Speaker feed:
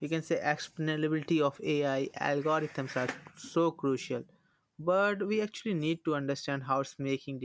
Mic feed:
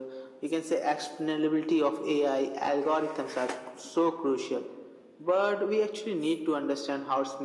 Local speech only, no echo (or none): none